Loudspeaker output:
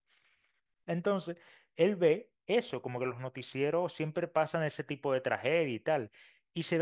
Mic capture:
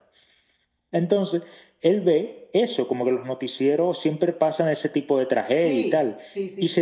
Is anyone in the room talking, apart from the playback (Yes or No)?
Yes